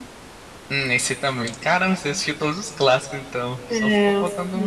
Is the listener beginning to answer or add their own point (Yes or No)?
Yes